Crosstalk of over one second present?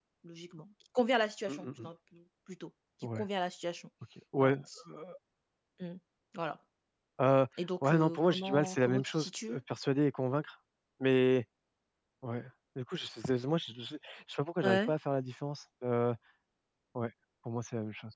Yes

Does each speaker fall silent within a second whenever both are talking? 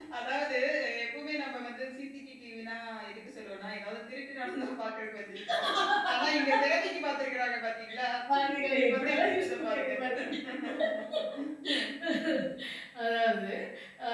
No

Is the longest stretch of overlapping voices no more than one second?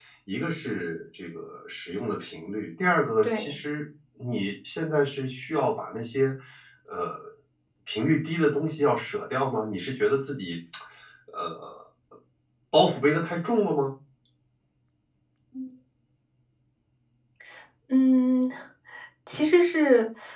Yes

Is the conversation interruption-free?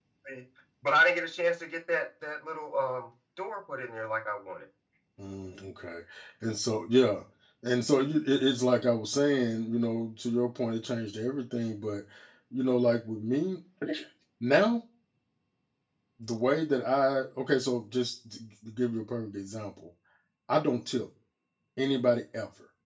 Yes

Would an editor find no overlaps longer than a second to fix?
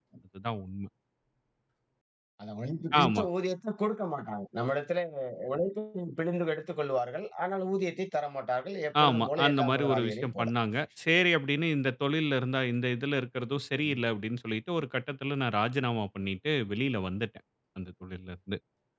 No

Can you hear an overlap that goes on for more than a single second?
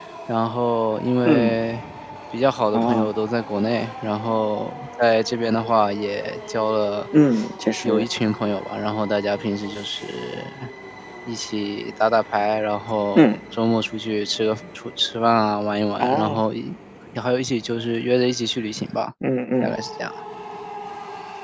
No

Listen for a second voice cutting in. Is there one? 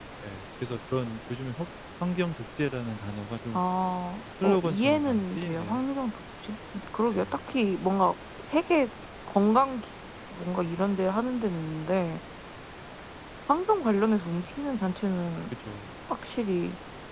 Yes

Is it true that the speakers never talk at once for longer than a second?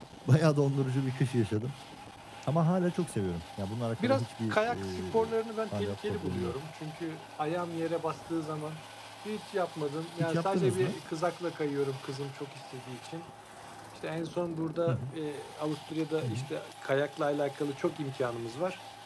No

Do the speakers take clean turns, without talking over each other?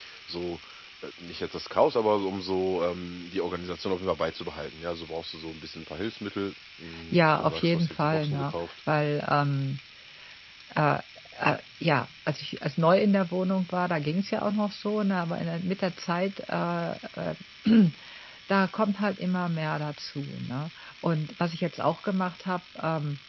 No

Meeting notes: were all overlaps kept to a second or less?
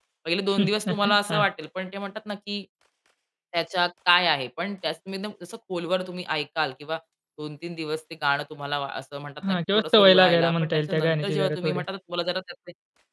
No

